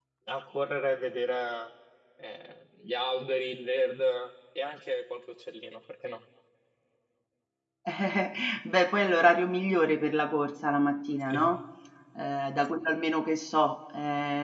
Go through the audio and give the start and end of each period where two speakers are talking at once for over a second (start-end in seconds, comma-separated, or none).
none